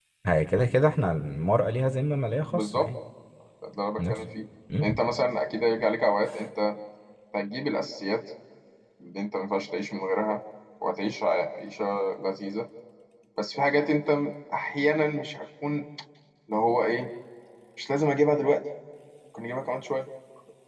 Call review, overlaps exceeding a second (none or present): none